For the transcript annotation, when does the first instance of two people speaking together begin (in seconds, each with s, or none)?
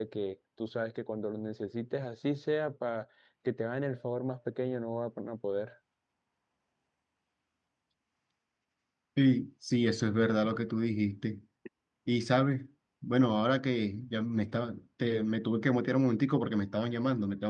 none